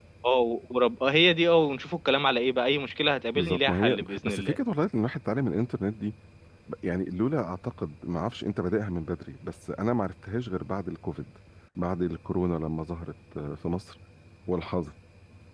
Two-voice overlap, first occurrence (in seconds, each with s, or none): 3.4 s